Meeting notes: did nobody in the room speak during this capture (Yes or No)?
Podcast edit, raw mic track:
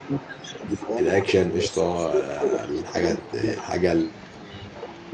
No